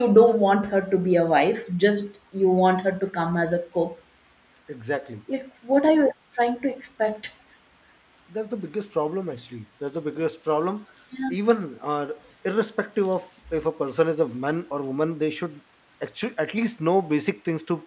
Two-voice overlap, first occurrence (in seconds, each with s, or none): none